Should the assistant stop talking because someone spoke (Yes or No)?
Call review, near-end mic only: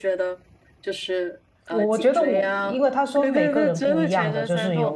Yes